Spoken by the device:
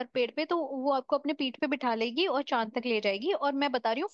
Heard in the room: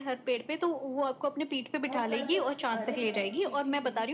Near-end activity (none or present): present